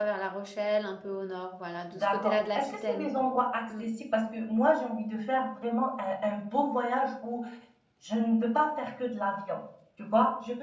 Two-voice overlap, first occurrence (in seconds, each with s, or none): 2.0 s